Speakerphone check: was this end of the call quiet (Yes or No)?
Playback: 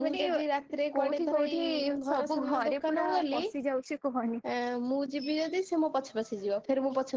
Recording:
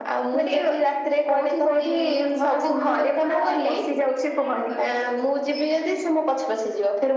No